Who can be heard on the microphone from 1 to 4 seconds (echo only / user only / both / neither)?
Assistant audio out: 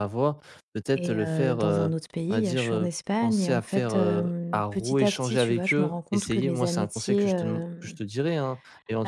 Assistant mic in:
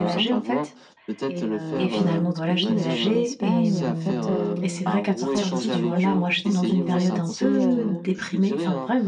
both